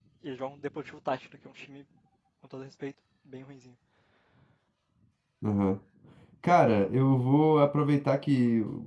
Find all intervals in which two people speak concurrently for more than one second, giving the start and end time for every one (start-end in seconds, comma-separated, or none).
none